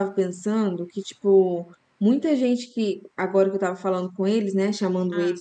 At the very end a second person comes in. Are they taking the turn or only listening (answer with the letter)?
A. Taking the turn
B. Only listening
B